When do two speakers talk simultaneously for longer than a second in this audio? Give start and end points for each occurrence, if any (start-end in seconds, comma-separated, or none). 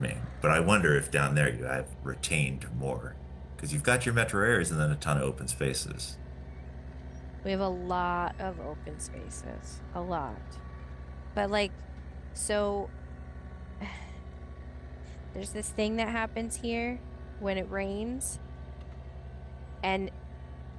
none